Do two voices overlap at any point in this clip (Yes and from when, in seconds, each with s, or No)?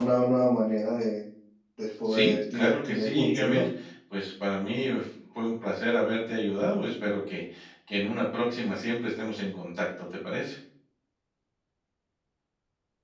Yes, from 2.0 s